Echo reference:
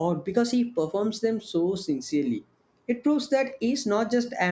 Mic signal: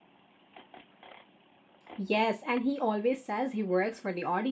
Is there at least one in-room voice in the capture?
Yes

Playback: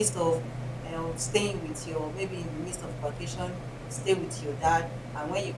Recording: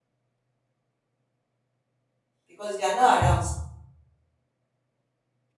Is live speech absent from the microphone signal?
No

